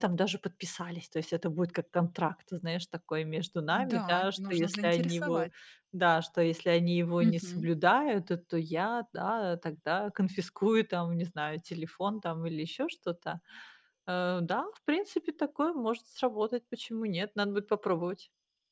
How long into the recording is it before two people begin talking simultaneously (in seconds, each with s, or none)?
3.7 s